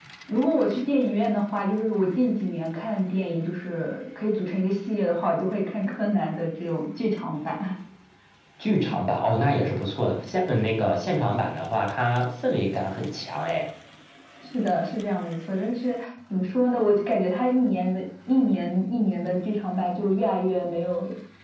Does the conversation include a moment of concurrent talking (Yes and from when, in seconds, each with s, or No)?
No